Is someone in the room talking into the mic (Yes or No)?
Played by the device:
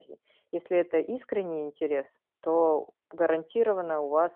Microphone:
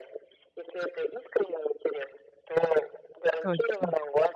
Yes